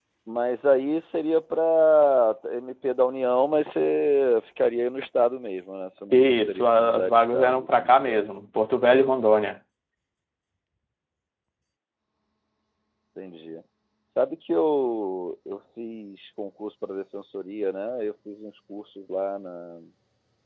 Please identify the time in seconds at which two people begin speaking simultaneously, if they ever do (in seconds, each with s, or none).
6.1 s